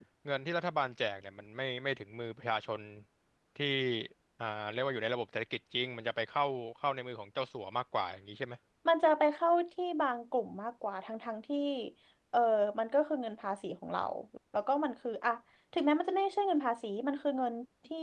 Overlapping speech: No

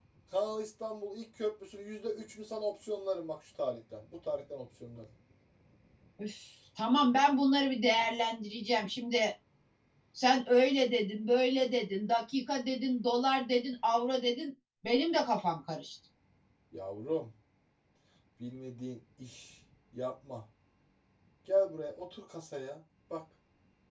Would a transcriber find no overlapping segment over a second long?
Yes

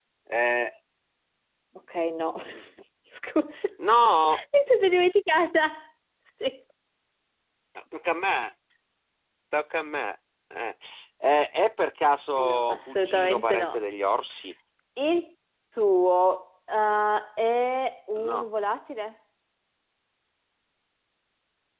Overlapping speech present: Yes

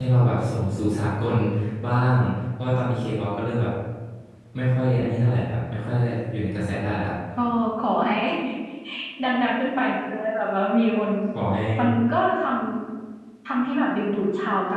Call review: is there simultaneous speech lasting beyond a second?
No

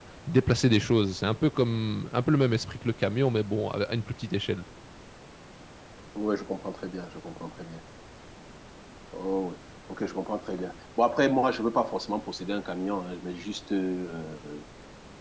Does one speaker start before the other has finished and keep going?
No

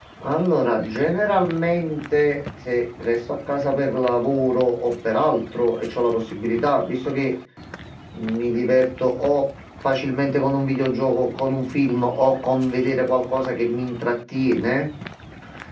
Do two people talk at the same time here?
No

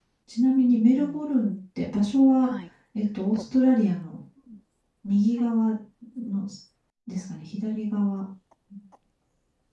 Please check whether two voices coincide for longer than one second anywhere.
No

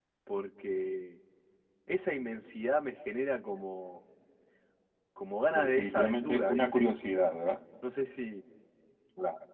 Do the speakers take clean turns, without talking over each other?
No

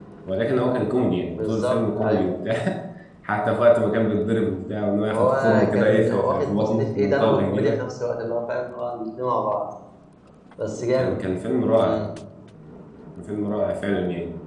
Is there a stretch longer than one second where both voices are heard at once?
Yes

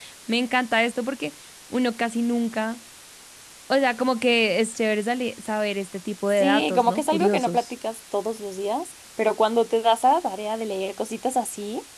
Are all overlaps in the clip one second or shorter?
No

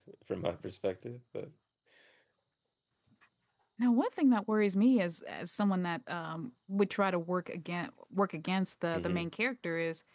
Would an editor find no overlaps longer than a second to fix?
Yes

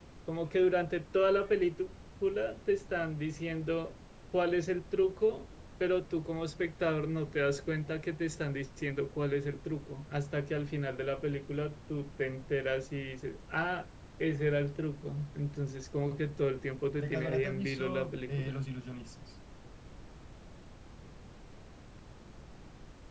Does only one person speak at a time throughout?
No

